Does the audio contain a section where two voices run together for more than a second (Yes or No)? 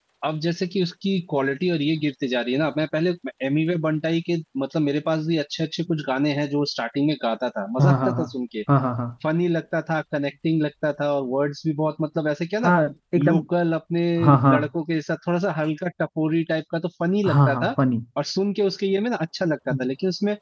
No